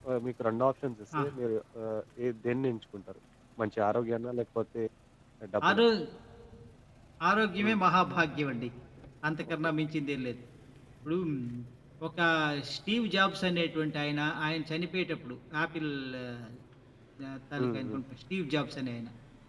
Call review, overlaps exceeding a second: none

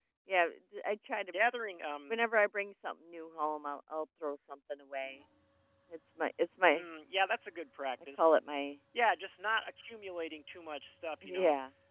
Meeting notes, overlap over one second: none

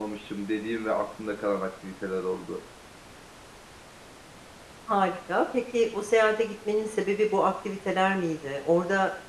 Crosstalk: none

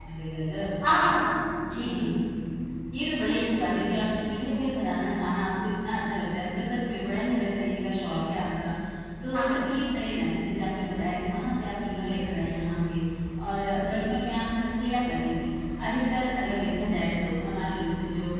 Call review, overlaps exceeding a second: none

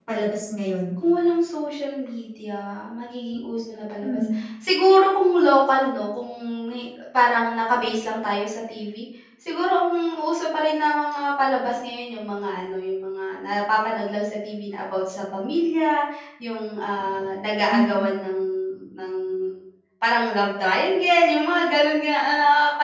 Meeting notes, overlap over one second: none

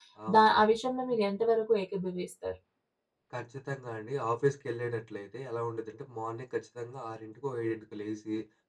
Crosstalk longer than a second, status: none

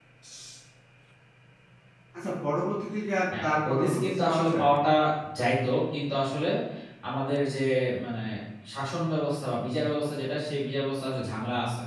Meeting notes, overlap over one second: present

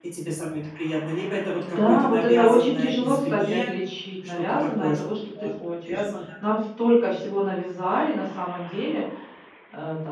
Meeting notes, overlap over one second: present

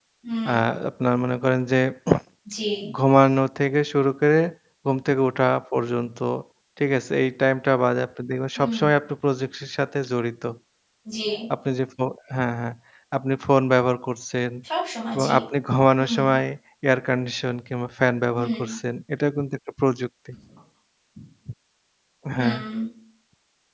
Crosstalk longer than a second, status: none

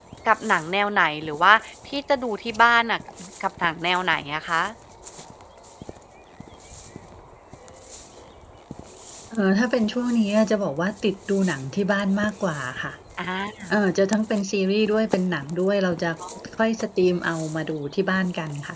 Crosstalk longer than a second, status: none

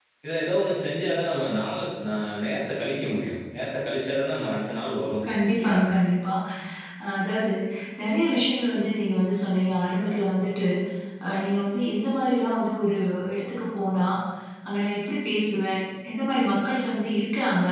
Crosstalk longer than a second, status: none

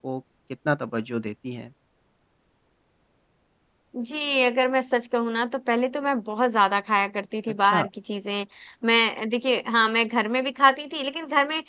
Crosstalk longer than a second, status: none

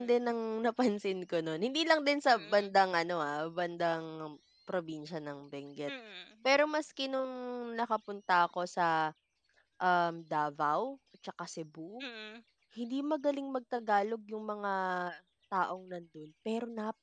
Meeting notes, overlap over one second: none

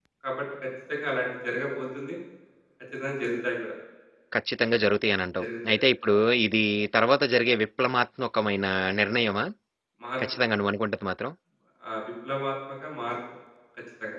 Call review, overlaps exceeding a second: none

